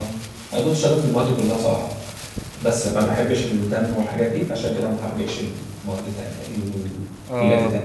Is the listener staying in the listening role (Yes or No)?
No